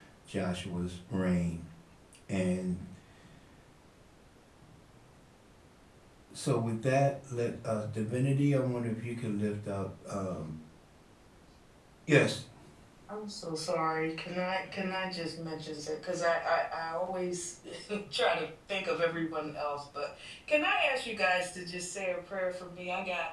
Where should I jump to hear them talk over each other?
none

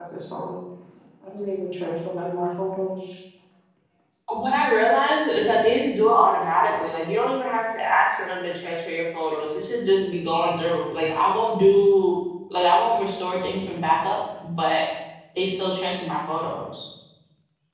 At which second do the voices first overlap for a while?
none

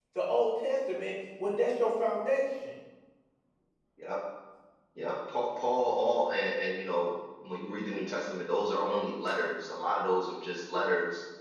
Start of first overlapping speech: none

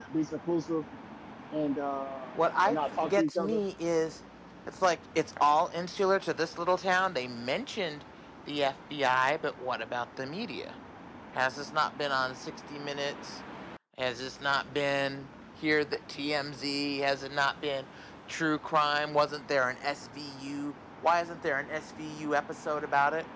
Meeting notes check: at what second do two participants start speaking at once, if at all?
2.4 s

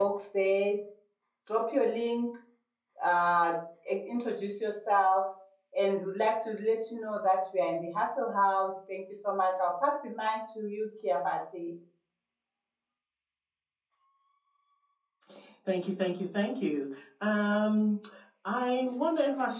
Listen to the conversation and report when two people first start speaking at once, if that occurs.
none

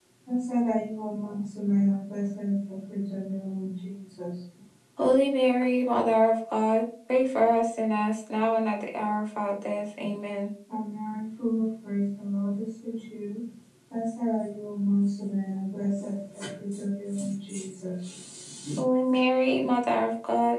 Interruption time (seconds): none

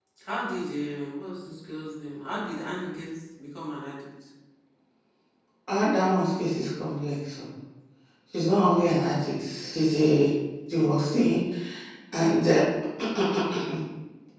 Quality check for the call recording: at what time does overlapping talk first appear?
none

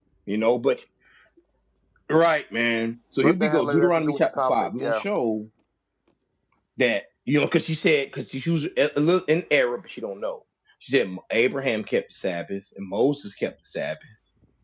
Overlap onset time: 3.2 s

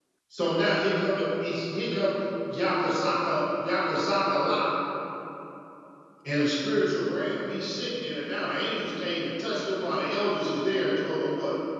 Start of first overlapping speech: none

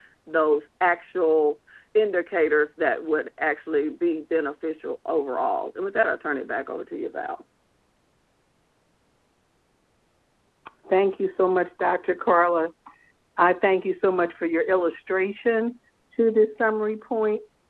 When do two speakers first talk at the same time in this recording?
none

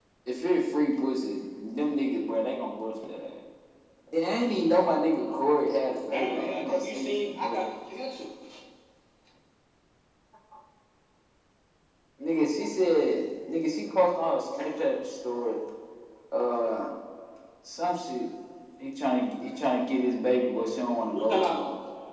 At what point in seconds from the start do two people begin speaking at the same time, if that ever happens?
6.1 s

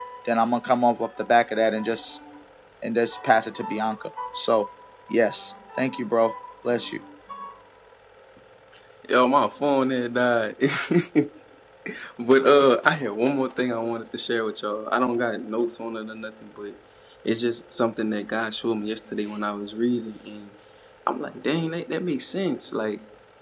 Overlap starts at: none

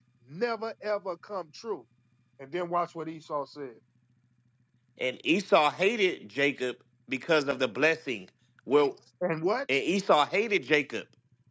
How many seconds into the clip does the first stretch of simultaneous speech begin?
none

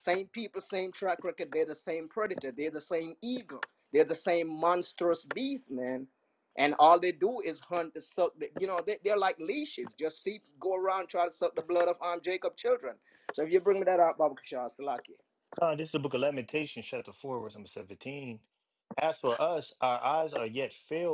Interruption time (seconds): none

